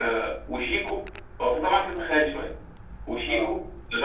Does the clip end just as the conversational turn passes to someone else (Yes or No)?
No